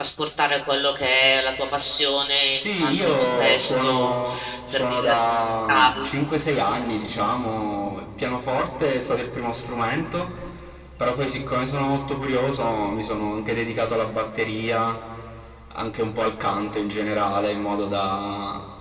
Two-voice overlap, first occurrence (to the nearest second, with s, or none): 2 s